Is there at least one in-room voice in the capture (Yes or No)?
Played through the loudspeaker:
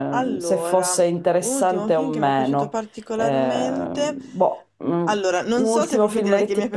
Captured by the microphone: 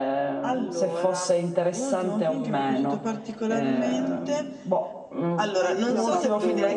Yes